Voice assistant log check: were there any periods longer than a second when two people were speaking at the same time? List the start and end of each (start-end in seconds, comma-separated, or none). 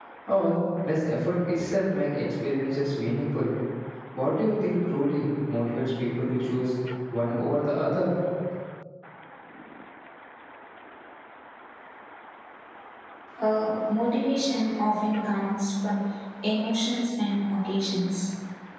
none